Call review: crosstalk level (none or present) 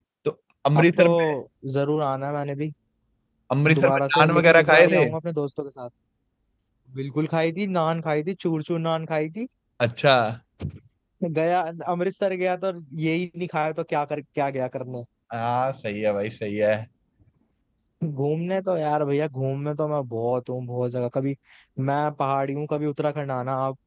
present